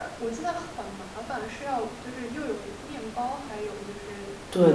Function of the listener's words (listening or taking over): taking over